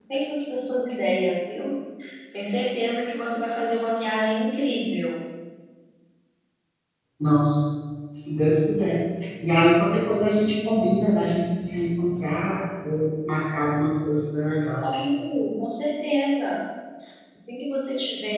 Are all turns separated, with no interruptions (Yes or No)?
Yes